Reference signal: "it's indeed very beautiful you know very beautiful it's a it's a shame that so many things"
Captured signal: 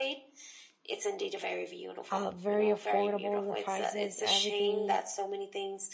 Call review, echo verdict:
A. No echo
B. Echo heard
B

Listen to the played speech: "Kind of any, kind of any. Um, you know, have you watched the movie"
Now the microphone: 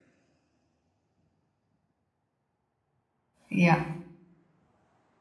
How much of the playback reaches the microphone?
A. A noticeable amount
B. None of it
B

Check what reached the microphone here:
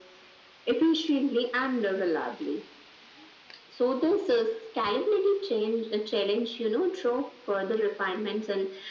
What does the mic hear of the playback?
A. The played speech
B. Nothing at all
A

